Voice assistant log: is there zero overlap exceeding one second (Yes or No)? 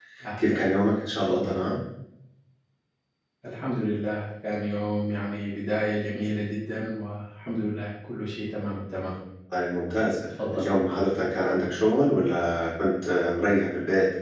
Yes